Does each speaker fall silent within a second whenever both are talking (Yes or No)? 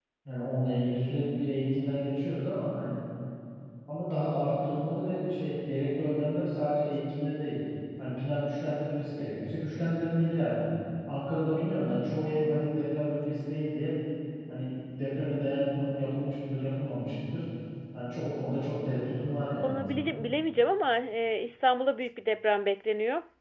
Yes